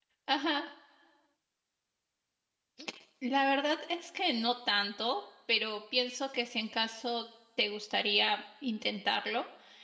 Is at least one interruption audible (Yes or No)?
No